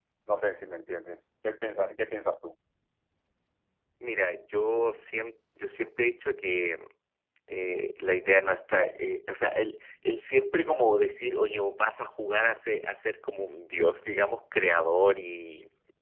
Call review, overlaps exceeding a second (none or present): none